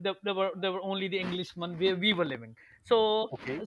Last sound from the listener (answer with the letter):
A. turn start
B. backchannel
B